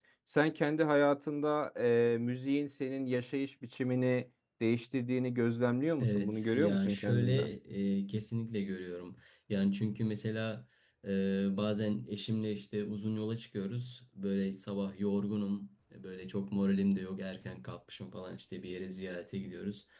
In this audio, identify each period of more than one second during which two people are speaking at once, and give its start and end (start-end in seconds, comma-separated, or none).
6.0-7.4